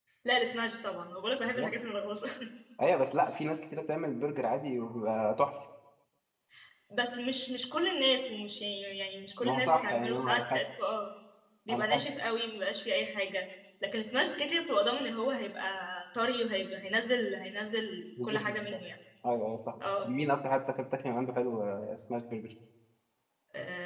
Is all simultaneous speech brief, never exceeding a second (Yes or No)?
No